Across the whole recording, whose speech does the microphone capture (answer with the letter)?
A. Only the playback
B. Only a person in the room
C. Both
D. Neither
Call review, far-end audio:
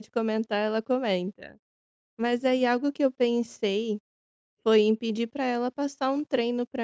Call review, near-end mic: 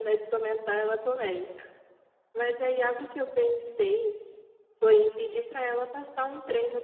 A